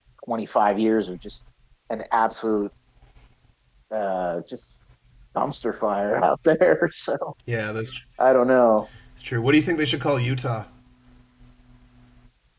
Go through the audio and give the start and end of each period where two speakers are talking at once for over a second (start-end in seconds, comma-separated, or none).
none